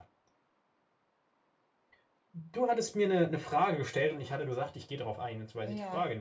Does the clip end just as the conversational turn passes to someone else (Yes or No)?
Yes